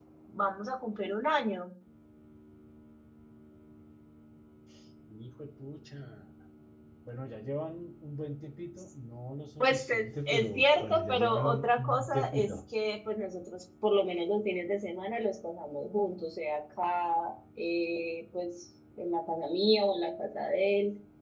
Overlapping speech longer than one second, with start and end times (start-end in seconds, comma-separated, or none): 9.6-12.5